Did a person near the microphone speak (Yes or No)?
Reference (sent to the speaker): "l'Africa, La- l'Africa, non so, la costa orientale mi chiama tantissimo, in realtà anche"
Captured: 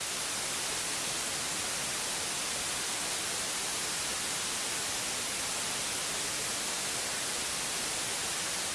No